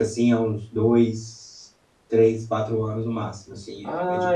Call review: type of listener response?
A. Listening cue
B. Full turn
B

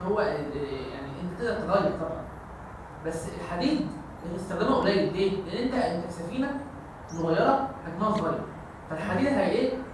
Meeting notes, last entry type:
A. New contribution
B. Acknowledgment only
B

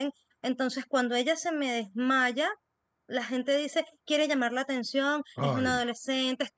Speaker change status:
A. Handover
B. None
B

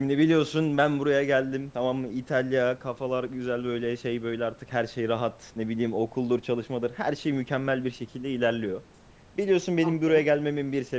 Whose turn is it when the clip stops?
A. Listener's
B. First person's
B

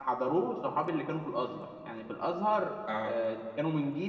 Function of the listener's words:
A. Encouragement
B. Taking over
A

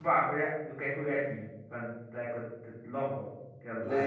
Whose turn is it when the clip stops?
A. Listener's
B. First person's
A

